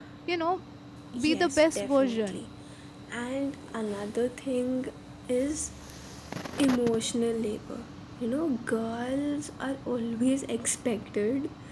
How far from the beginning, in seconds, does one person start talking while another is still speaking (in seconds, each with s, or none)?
1.2 s